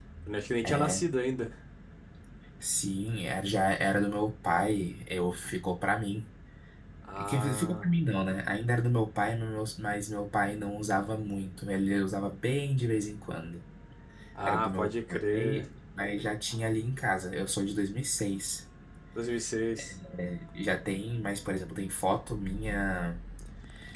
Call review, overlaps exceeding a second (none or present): present